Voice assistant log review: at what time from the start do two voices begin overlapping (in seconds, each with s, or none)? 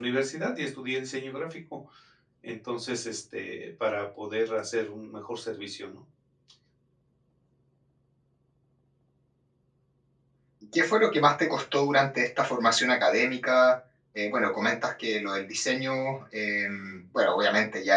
none